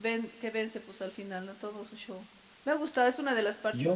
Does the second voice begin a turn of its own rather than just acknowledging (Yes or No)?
No